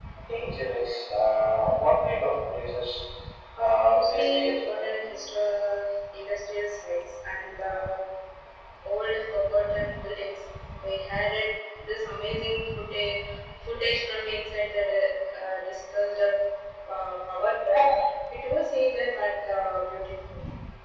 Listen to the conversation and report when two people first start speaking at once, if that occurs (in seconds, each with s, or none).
3.6 s